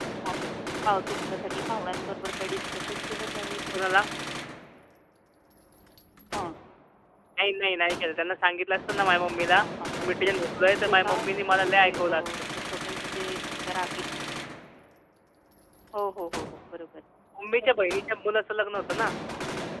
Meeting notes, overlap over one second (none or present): present